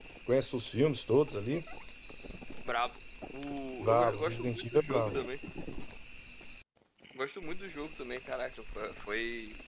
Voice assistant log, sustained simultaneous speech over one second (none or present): present